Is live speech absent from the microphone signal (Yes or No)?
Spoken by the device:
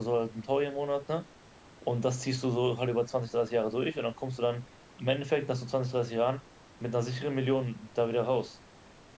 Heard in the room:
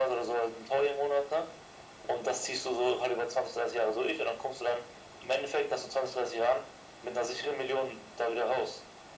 Yes